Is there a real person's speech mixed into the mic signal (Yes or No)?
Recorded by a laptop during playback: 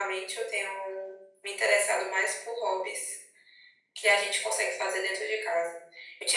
No